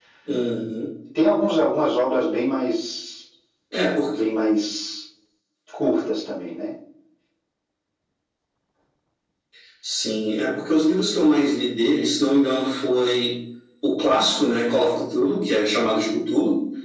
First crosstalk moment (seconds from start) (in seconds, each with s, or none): none